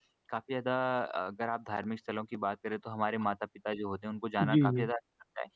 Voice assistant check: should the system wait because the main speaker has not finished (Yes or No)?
Yes